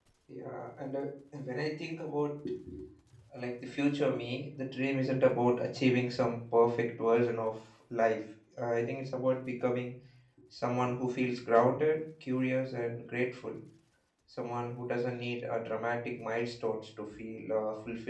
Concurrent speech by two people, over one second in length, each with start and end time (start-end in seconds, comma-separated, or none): none